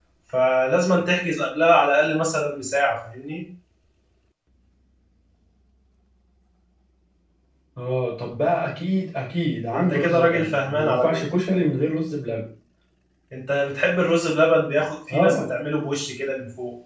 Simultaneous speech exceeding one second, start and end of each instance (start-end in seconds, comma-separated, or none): 9.7-11.3